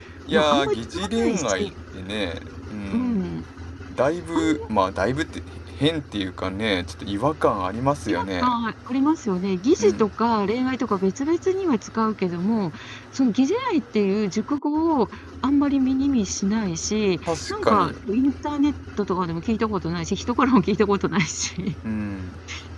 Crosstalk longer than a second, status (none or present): present